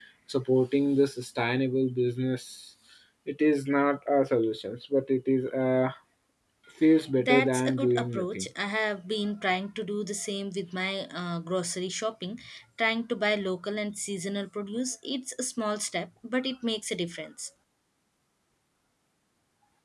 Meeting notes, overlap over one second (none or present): present